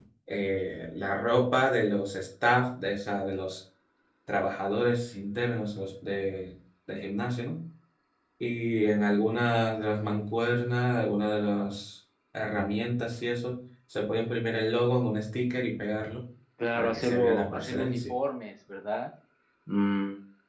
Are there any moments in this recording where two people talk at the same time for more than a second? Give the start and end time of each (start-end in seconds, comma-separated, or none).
16.8-18.1